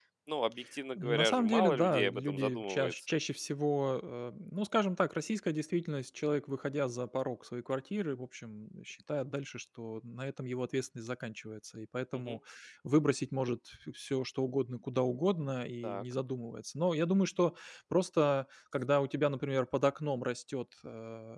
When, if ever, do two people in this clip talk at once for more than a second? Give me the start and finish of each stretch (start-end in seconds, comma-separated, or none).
1.0-2.9